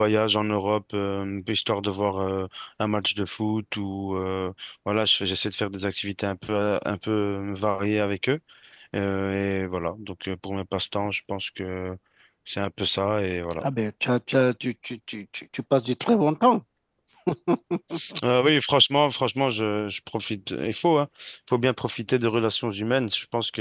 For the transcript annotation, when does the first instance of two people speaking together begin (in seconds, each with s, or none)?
none